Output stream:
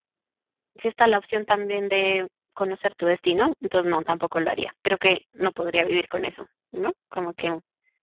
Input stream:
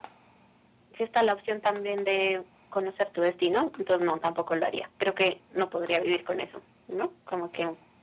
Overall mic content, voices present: echo only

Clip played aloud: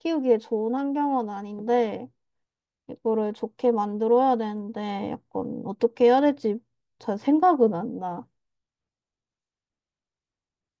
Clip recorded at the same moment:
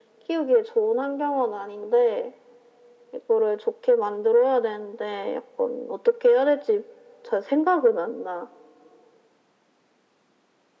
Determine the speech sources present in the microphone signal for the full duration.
echo only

